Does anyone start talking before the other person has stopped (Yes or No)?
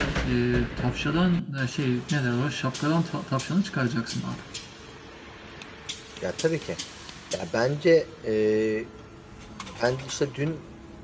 No